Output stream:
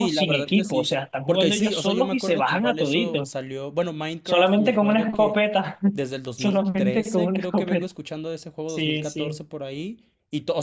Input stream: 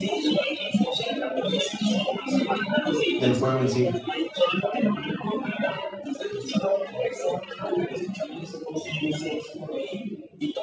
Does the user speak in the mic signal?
Yes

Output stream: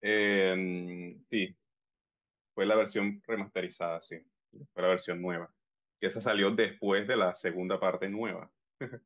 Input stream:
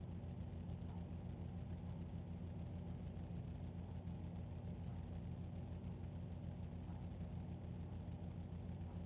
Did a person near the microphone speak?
No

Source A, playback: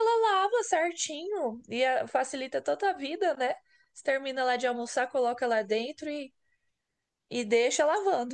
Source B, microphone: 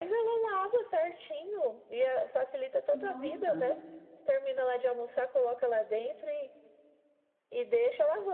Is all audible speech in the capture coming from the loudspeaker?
No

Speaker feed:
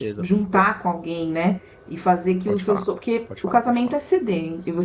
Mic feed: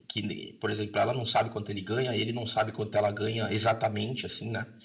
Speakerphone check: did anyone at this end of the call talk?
Yes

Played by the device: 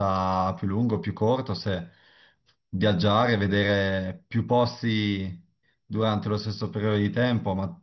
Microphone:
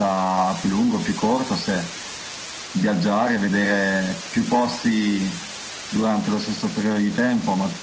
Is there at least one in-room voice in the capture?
No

